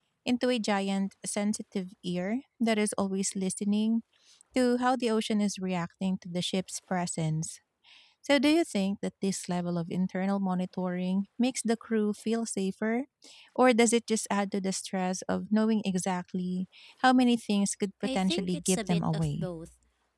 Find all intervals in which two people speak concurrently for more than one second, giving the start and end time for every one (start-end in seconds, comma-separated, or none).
18.1-19.5